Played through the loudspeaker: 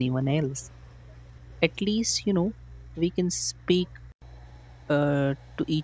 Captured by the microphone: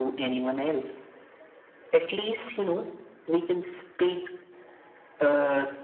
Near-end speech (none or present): none